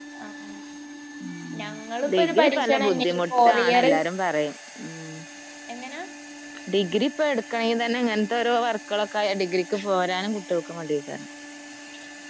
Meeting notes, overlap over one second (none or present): present